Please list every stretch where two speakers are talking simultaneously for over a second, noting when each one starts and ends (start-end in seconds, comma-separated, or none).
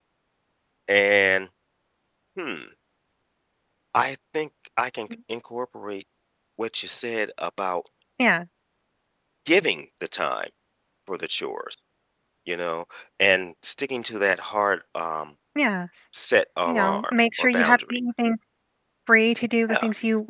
16.7-18.0